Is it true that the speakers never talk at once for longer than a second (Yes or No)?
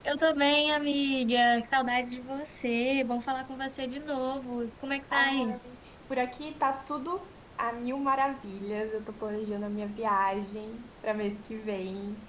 Yes